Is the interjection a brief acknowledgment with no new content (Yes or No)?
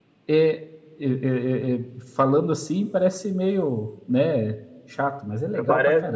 No